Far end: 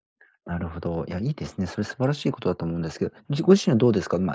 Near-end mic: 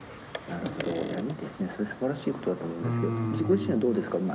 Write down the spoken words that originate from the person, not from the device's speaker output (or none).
うーん、